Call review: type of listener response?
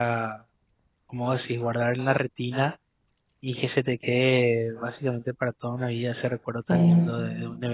listening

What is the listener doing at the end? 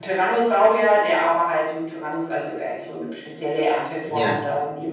listening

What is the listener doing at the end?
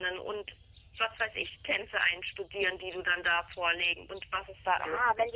taking over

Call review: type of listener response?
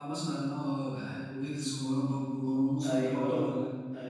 taking over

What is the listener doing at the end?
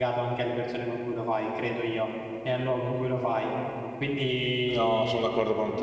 taking over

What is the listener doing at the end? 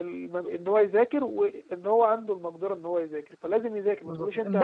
taking over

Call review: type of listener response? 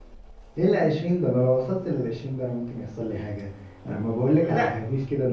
listening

